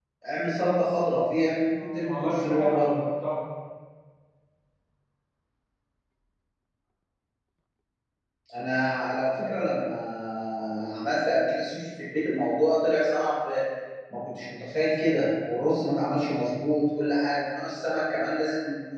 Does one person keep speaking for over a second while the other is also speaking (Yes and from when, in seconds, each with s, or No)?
Yes, from 1.7 s